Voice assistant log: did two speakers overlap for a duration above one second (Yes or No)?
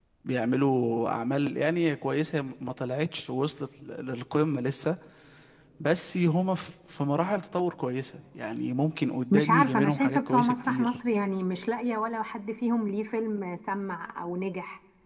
Yes